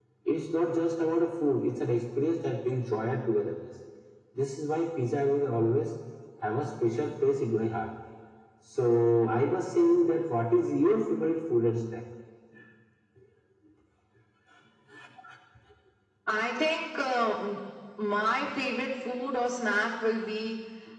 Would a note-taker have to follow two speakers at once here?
No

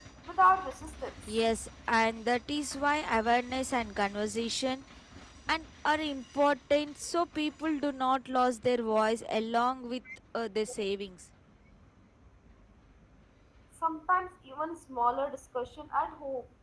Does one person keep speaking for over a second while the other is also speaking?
No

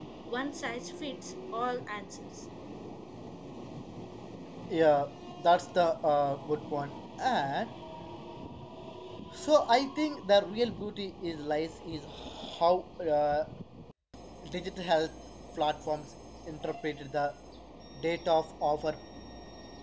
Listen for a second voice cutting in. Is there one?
No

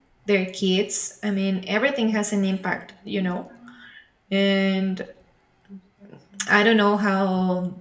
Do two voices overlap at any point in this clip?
No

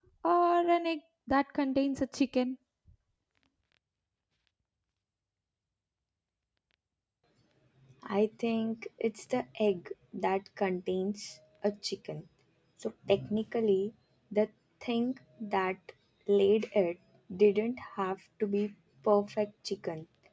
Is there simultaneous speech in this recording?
No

